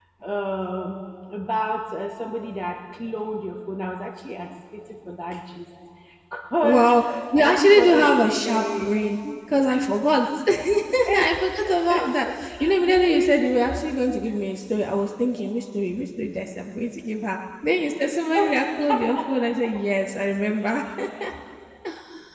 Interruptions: present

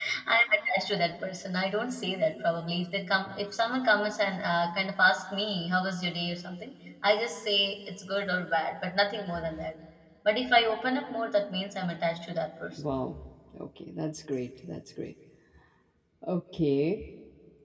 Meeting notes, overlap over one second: none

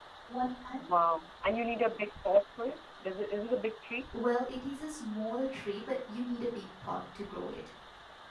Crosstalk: none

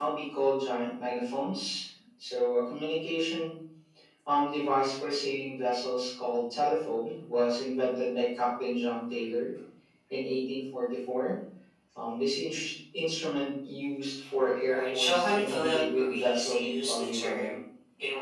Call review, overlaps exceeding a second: present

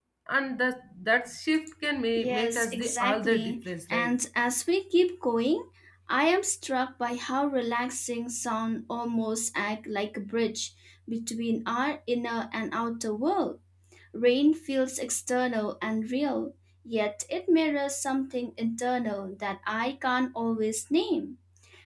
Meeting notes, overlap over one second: present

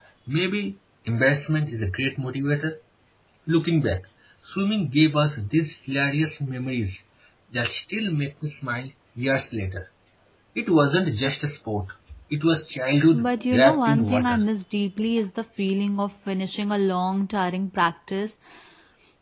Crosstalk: present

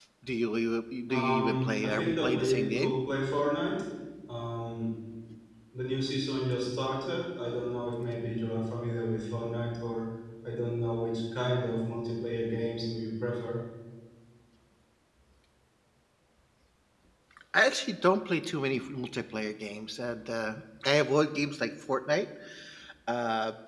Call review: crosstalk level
present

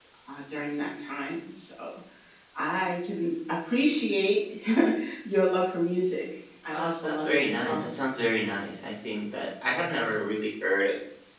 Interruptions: present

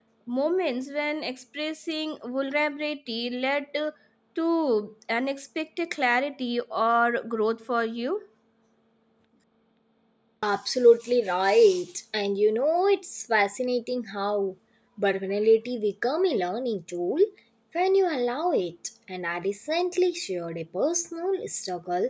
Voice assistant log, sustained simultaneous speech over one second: none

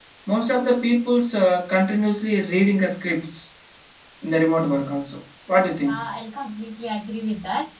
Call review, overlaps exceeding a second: none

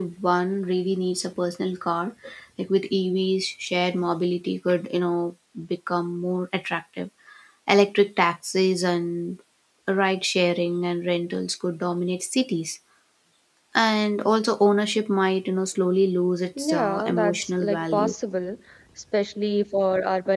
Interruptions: present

